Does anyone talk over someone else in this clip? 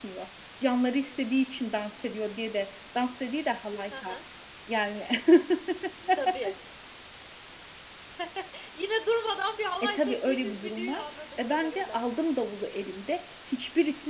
Yes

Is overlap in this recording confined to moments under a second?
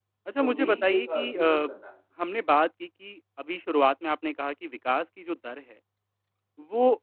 No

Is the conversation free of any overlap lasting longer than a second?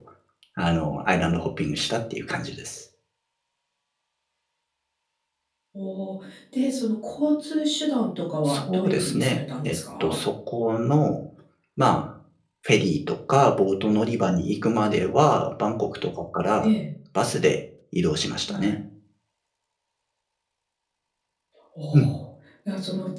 No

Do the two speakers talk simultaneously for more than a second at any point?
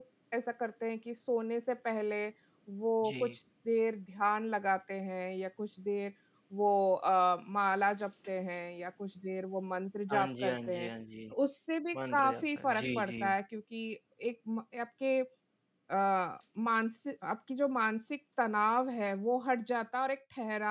Yes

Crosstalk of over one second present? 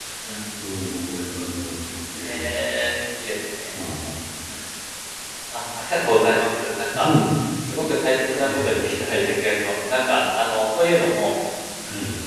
No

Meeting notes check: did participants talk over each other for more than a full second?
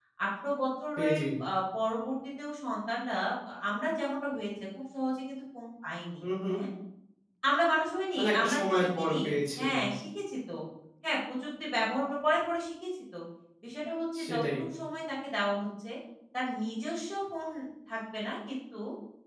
Yes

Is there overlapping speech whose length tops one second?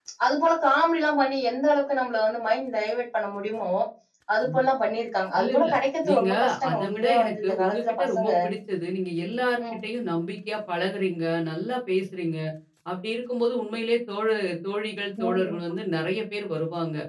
Yes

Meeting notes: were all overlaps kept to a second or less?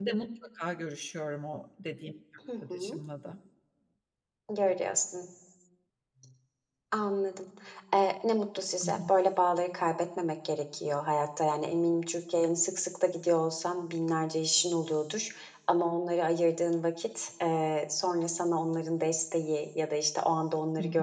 Yes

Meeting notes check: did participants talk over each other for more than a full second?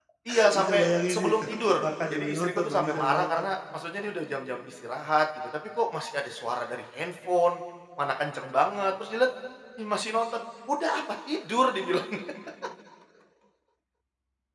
Yes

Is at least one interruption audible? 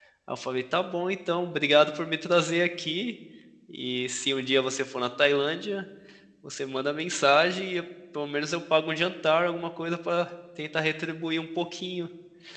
No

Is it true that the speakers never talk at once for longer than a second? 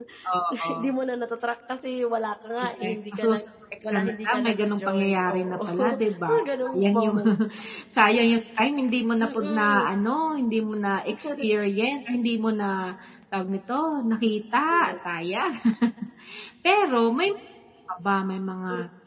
No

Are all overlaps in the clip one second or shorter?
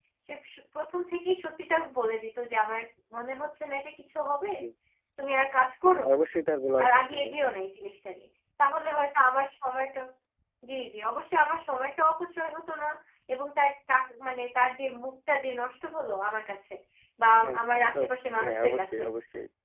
No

